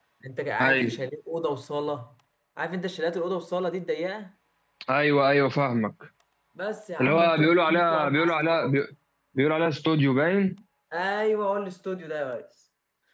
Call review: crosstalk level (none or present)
present